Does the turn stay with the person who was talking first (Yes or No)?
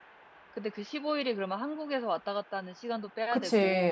No